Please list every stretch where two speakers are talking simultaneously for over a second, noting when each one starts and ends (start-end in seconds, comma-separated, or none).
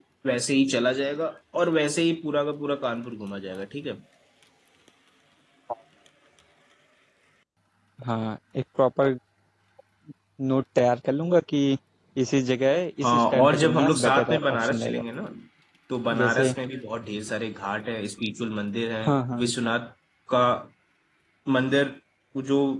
13.1-15.0